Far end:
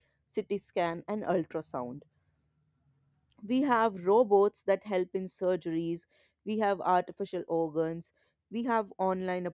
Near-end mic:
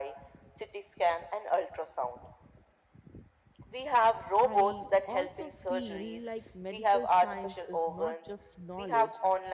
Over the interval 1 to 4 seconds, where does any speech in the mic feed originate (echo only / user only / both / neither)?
echo only